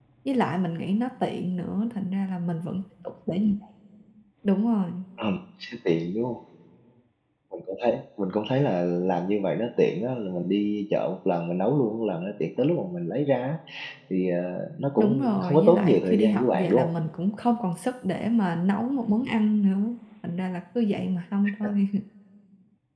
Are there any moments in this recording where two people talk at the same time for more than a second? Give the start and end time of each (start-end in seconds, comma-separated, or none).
15.0-16.9